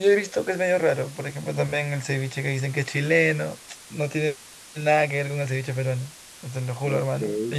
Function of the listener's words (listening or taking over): listening